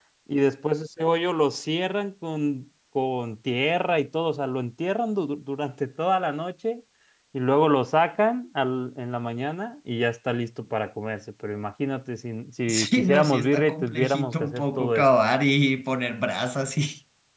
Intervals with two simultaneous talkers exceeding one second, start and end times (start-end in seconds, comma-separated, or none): 12.7-15.1